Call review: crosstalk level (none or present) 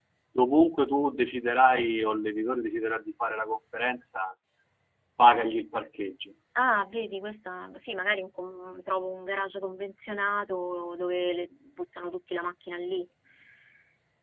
none